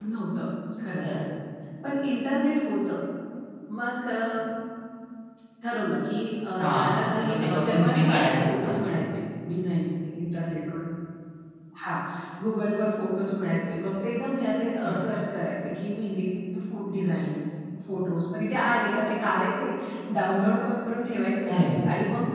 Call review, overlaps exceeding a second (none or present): present